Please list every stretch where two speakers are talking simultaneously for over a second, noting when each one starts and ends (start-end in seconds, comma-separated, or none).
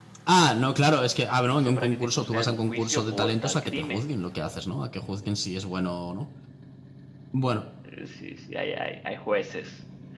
1.5-4.0